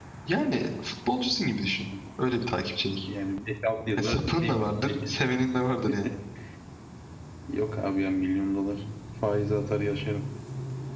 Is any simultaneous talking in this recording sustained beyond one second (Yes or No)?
Yes